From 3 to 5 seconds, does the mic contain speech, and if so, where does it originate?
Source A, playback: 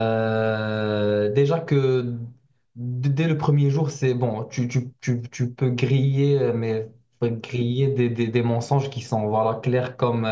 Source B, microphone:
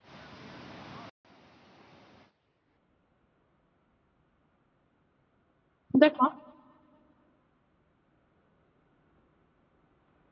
neither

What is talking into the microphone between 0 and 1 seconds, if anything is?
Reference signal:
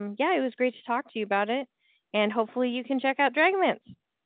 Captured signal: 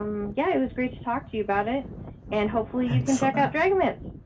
echo only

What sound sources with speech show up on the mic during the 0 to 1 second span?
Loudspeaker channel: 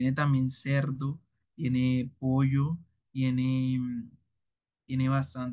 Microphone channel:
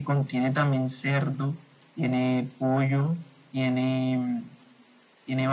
echo only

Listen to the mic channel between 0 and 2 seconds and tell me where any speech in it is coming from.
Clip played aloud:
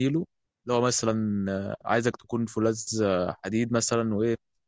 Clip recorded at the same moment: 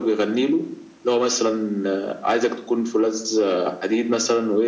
echo only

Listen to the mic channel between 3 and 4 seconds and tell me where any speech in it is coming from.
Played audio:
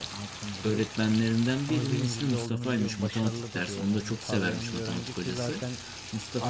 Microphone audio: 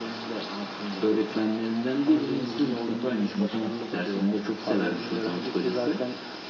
echo only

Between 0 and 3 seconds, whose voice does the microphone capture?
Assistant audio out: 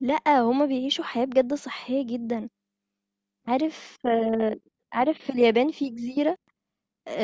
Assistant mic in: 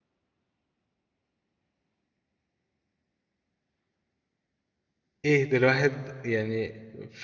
neither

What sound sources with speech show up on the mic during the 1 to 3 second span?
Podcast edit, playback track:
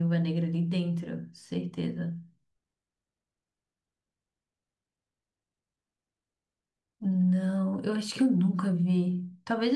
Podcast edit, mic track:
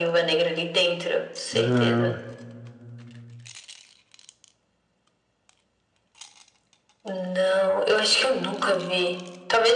both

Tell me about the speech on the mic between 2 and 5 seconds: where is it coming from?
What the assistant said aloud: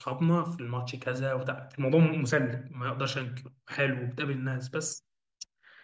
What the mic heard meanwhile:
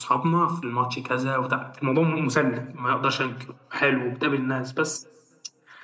echo only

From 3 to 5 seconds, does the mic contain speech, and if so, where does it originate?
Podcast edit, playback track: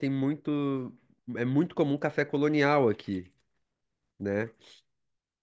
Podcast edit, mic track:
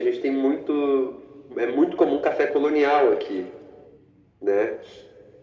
echo only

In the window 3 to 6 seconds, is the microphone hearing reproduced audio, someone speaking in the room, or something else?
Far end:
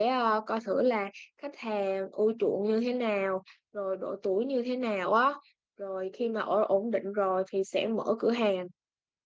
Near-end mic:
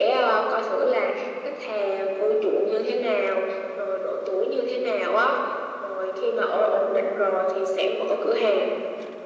echo only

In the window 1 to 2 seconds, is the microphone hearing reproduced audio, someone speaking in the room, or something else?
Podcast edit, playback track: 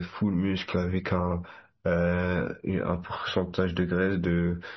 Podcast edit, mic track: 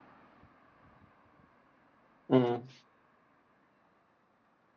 neither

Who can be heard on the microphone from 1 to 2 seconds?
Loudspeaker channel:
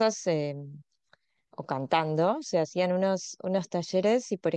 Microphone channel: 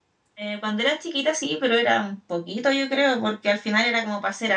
user only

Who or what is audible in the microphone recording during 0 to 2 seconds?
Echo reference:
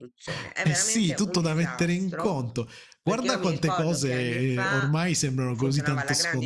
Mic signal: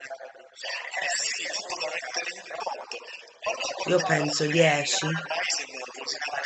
echo only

